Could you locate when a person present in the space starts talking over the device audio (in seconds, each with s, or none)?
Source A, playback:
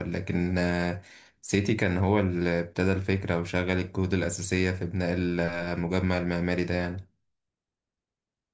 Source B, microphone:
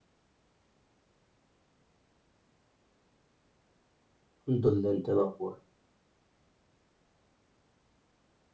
4.5 s